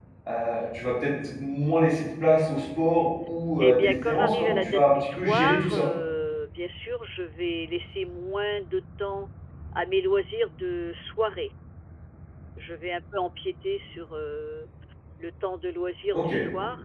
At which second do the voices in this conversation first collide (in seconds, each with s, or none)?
3.6 s